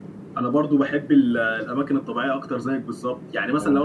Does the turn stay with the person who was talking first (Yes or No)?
Yes